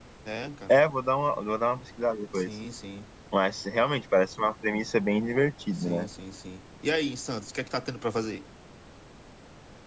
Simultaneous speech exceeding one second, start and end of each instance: none

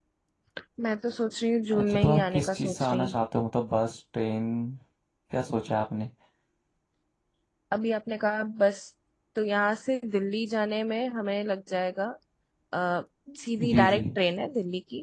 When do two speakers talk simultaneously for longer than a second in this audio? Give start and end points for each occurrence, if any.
1.7-3.1

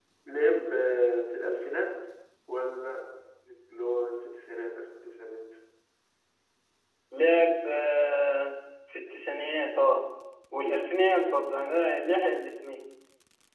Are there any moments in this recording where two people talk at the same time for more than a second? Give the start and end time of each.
none

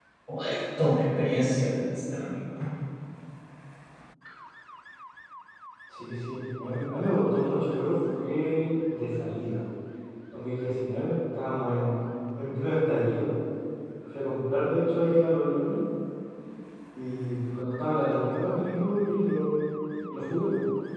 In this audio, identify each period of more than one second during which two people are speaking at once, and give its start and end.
none

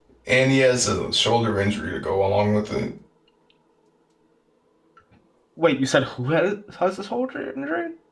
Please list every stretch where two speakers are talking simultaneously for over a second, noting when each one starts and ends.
none

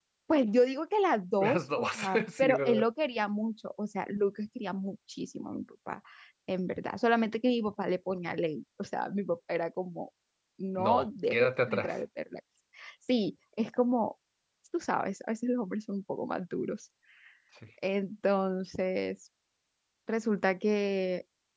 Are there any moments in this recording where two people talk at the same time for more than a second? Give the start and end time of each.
1.4-2.9, 10.8-12.0

